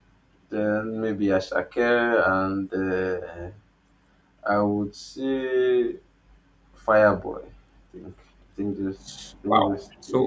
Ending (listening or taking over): taking over